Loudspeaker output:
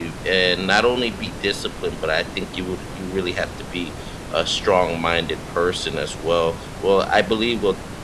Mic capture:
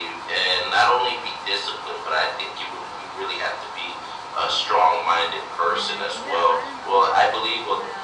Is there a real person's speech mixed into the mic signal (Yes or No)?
Yes